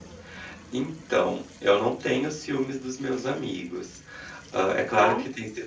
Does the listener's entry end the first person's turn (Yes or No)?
No